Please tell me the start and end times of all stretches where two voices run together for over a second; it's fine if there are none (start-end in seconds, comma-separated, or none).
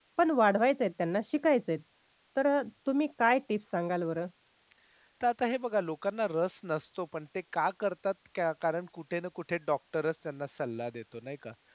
none